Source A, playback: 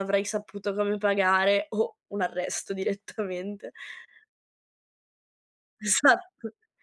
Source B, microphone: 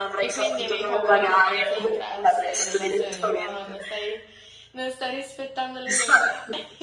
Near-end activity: present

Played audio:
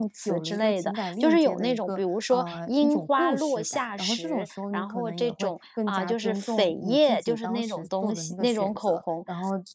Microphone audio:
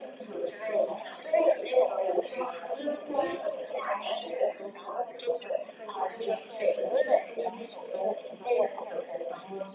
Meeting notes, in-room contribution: none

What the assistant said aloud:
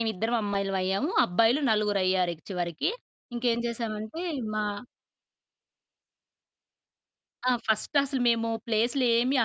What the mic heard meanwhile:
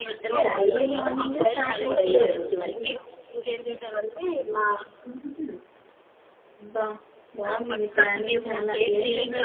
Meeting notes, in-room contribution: present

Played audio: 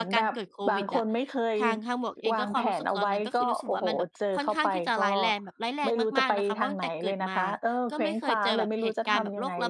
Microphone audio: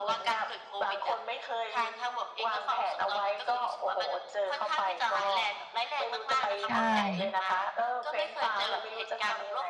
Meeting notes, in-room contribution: present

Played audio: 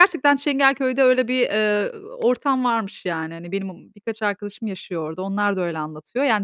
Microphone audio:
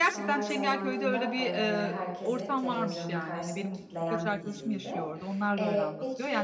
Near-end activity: present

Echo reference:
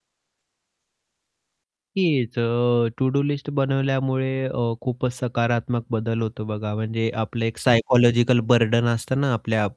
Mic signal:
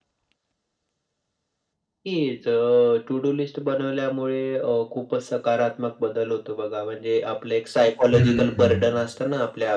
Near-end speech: present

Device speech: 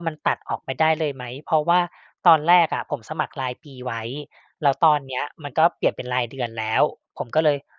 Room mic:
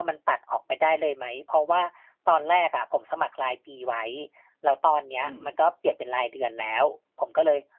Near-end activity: present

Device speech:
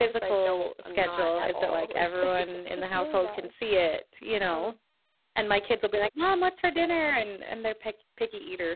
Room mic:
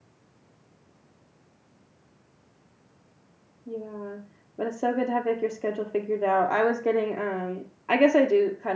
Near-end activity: present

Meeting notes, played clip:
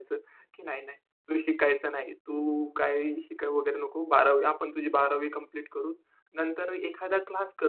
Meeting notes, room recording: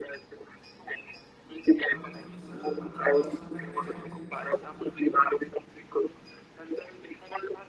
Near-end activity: present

